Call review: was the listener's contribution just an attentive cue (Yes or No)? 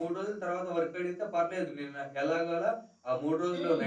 Yes